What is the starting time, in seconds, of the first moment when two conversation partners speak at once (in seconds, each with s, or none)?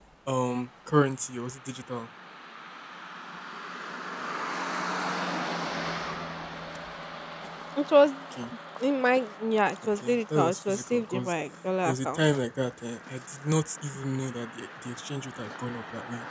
10.0 s